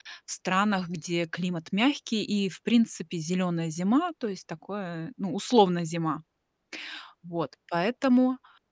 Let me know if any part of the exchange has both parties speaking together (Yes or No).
No